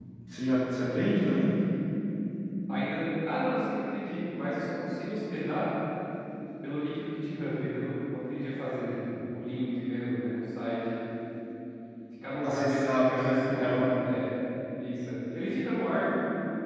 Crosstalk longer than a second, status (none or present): present